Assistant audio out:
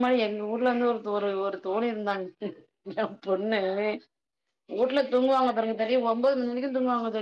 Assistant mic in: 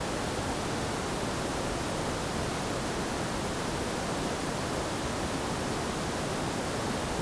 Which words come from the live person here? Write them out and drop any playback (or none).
none